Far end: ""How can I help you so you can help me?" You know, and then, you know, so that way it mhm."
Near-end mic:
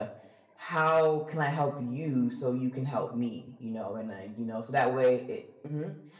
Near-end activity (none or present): none